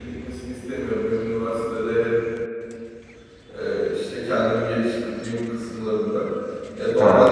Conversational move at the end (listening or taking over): listening